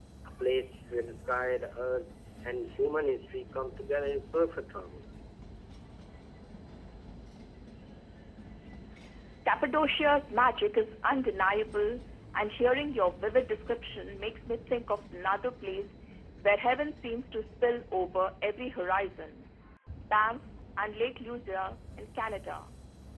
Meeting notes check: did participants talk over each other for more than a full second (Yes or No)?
No